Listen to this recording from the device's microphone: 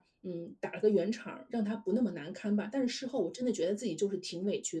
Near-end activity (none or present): none